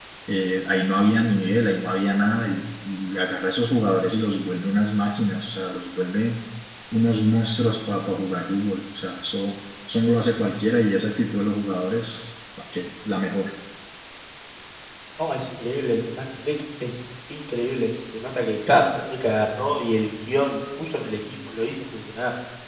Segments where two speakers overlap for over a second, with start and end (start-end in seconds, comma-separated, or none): none